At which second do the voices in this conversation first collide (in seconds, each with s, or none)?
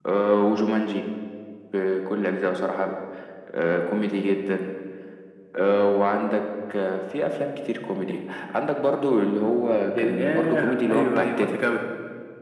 9.9 s